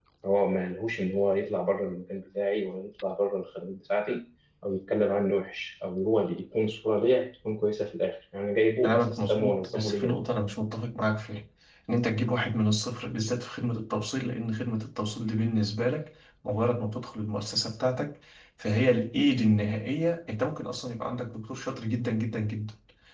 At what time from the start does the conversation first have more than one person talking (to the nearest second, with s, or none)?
9 s